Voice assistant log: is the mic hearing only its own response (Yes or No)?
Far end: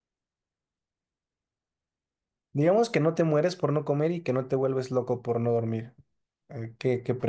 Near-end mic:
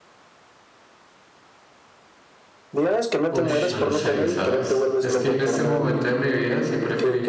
No